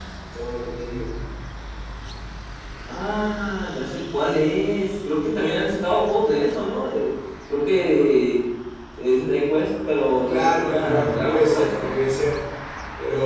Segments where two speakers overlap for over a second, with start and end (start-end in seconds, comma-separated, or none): 10.3-11.9